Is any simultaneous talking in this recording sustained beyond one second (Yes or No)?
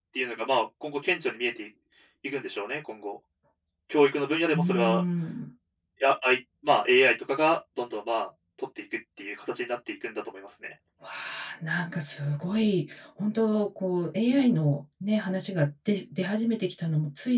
No